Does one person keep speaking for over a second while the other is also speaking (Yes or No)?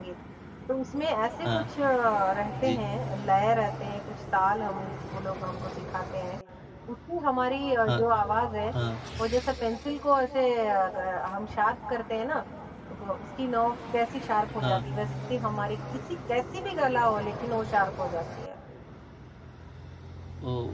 No